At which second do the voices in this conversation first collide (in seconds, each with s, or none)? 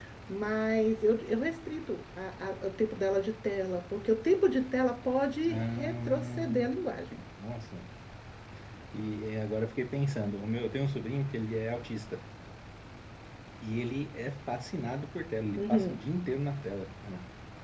5.5 s